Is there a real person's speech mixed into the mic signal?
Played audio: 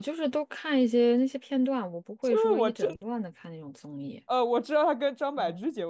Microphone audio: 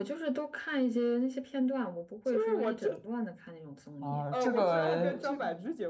Yes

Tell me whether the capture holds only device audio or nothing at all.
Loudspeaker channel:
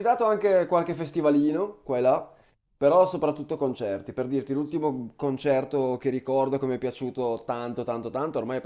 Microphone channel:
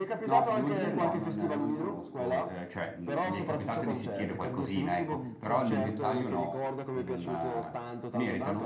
No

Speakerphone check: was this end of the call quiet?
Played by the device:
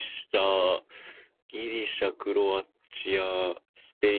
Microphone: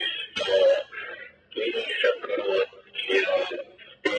Yes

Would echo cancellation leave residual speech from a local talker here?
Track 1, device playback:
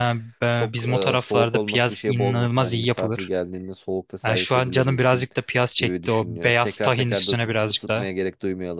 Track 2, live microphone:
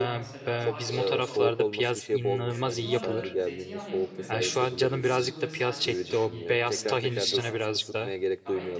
Yes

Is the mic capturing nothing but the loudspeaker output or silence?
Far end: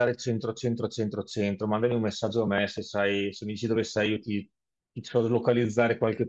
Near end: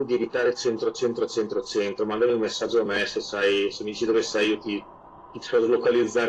Yes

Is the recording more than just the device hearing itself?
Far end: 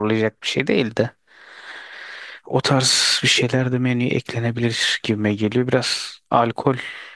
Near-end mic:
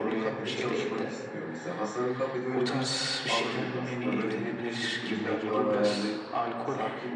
Yes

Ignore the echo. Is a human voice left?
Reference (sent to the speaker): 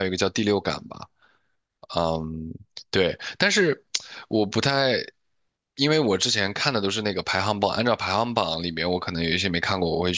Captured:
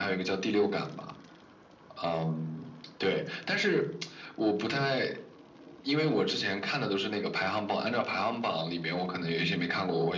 No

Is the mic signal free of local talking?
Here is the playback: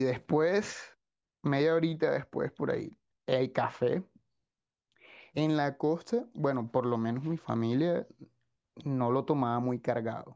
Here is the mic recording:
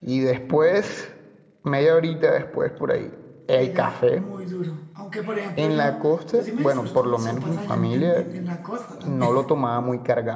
No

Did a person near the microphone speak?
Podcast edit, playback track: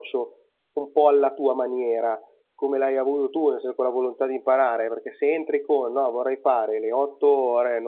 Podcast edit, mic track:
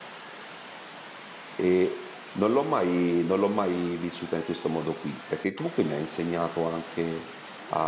Yes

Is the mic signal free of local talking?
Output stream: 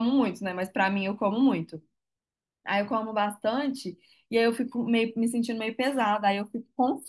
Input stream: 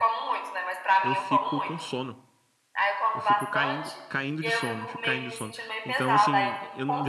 No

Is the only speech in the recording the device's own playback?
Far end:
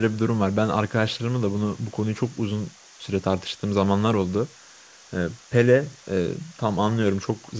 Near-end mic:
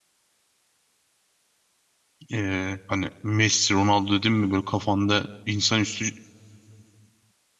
No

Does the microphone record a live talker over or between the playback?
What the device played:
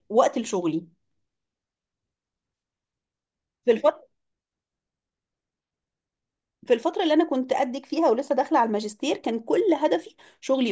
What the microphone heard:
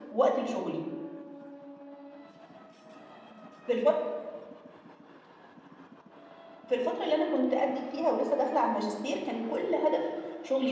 No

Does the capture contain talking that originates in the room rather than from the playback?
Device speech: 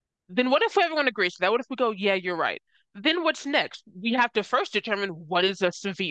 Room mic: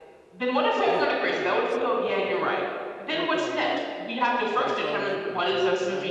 Yes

